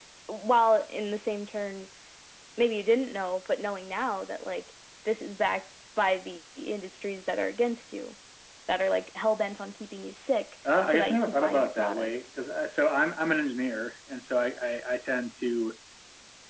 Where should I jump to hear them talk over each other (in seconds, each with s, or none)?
10.6 s